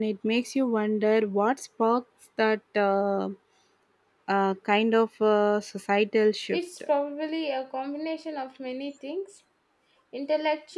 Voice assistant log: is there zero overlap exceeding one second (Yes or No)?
Yes